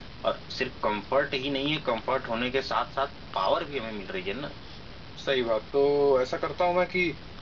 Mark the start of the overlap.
none

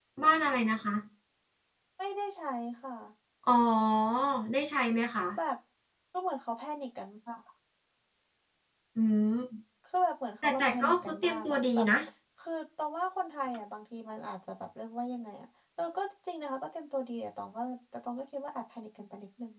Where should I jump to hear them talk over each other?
10.4 s

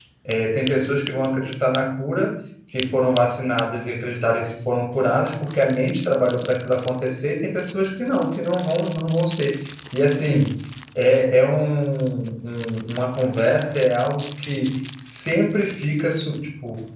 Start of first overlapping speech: none

